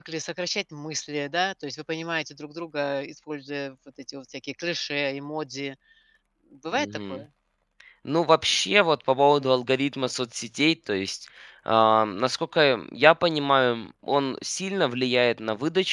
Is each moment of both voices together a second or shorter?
Yes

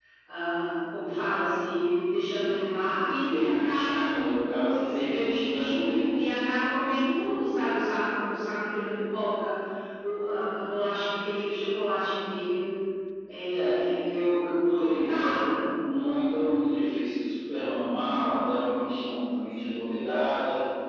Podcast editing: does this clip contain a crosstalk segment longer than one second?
Yes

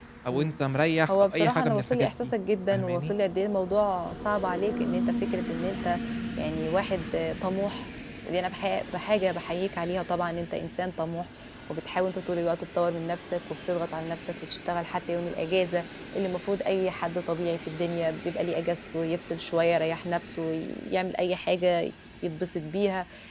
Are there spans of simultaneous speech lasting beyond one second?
Yes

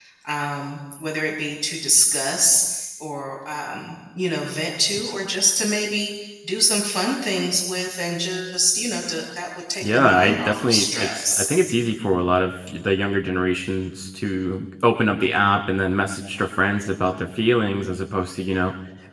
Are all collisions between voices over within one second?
No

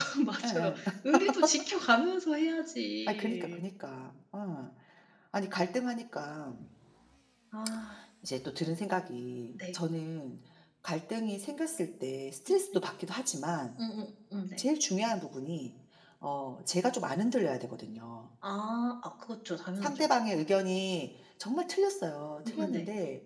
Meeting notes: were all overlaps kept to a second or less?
Yes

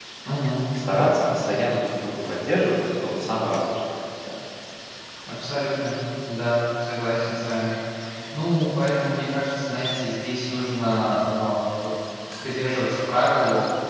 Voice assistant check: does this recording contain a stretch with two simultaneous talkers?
No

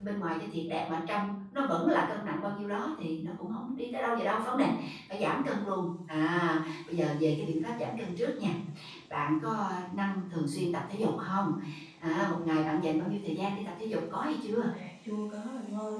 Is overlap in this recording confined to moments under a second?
Yes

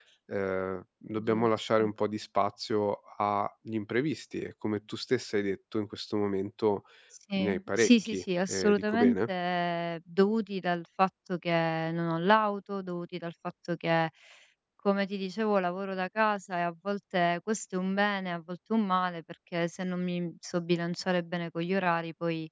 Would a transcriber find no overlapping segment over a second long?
No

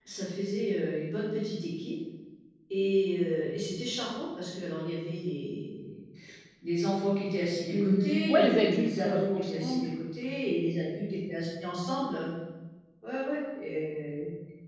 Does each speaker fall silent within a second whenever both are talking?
No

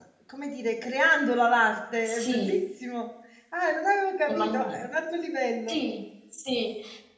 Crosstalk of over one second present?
No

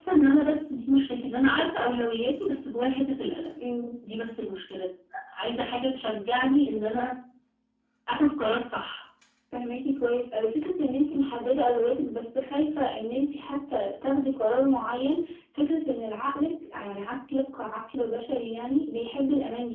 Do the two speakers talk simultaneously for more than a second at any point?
No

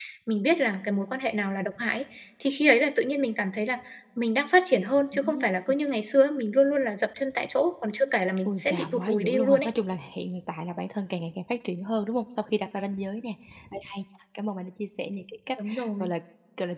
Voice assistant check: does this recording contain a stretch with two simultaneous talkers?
Yes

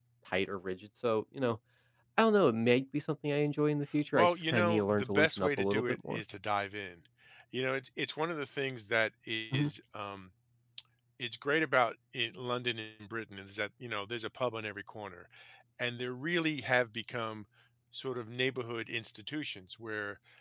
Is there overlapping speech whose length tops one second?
Yes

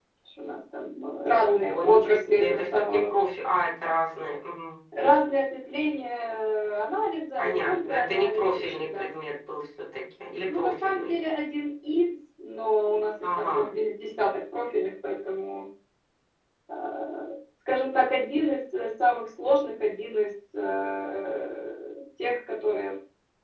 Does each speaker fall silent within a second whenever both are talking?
No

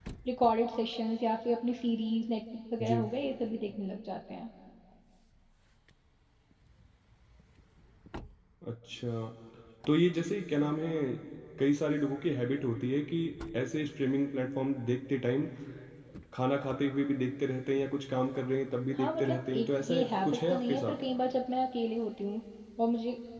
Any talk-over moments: Yes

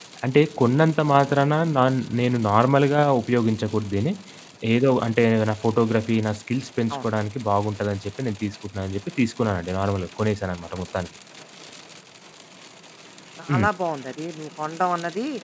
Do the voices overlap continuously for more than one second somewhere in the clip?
No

